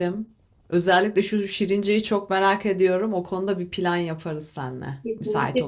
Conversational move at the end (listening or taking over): taking over